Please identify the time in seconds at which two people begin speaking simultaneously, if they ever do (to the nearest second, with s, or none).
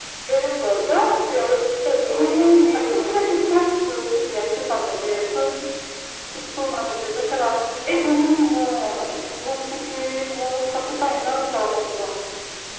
2 s